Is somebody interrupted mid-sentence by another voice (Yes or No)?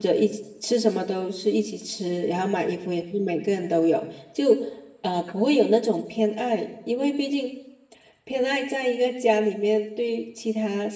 No